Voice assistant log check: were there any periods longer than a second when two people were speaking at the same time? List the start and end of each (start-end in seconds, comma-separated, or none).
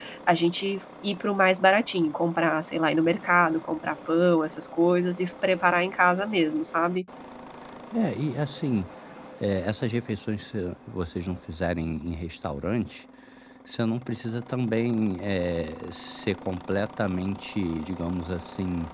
none